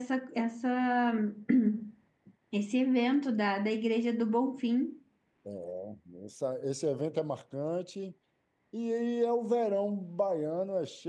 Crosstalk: none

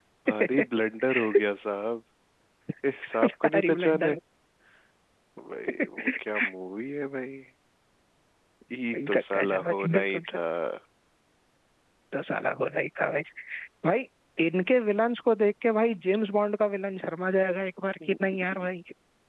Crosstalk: present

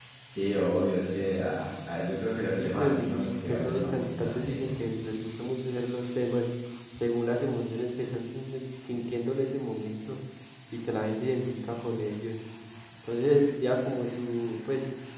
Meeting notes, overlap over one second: present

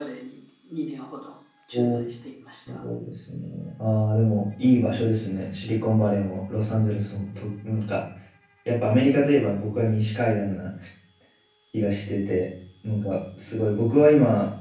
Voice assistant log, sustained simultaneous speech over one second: none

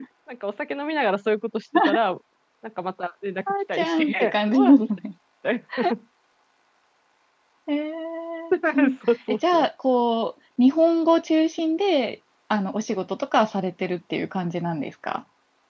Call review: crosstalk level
present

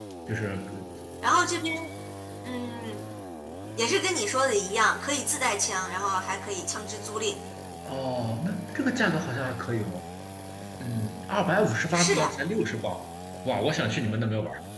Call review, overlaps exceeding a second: none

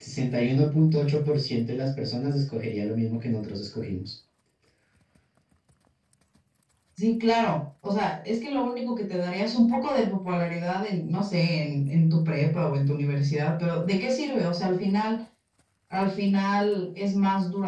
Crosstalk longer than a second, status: none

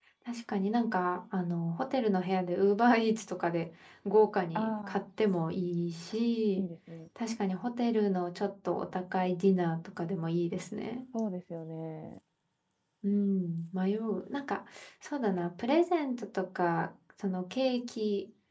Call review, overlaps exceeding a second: none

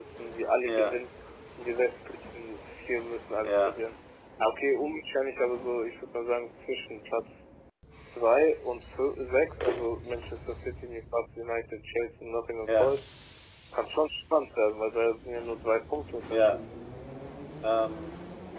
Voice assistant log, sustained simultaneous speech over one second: none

